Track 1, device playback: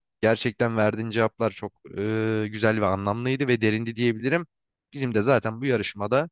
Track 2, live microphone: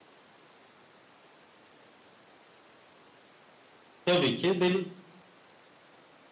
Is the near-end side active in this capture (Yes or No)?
Yes